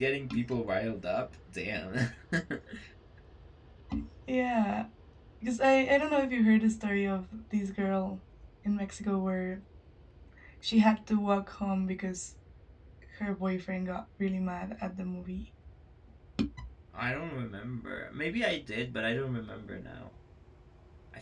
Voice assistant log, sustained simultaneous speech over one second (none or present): none